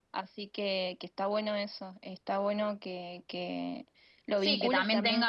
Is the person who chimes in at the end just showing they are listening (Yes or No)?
No